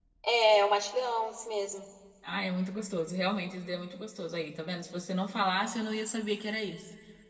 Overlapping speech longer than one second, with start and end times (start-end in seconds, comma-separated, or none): none